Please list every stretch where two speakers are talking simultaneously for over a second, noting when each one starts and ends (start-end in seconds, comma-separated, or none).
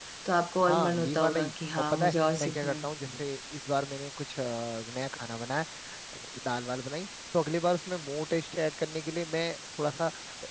0.7-2.9